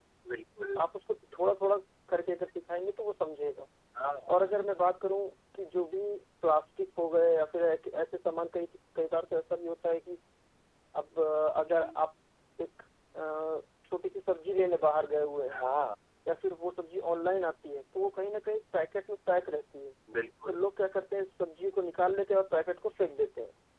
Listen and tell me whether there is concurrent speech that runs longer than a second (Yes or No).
No